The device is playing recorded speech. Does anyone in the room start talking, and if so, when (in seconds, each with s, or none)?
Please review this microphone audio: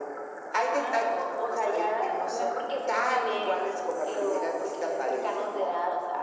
none